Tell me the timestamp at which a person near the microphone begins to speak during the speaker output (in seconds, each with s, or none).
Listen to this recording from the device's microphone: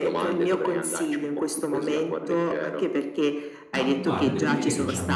3.7 s